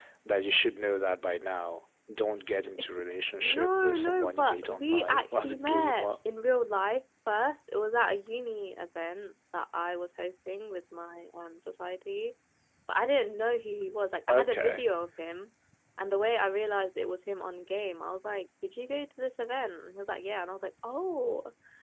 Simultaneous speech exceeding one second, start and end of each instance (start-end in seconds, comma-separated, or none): 3.4-6.1